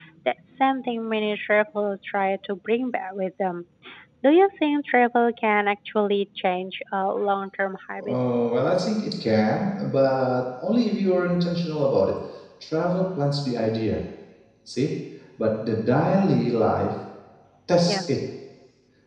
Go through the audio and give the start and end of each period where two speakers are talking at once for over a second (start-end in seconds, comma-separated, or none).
none